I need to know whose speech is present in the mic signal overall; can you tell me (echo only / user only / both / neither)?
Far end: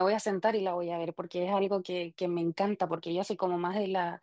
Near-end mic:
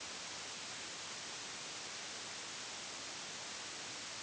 neither